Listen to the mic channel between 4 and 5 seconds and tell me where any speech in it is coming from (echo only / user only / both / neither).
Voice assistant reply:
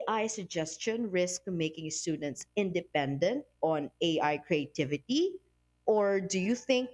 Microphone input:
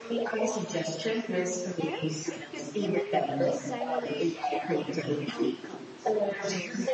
both